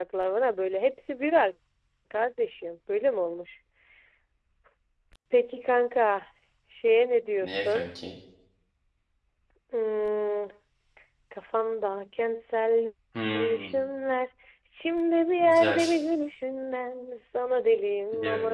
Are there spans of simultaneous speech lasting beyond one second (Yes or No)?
No